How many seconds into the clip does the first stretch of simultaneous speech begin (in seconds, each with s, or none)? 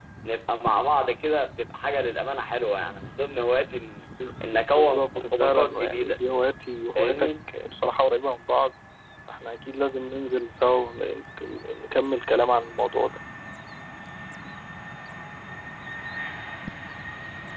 4.7 s